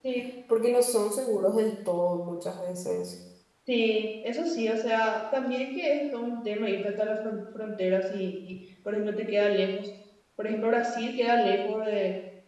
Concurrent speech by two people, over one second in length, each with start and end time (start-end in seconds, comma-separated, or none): none